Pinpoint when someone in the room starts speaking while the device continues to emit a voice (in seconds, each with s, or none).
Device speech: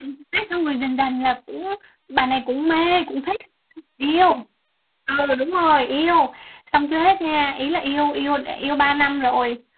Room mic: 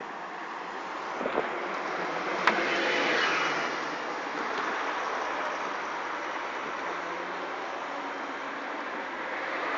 none